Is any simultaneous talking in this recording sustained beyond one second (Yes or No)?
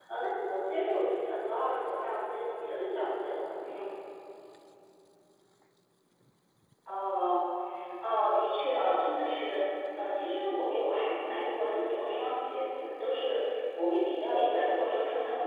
No